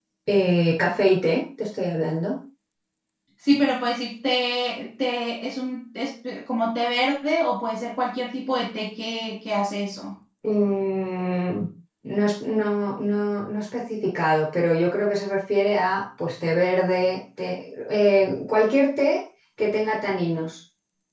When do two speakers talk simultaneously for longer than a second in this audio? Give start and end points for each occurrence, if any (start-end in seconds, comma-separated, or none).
none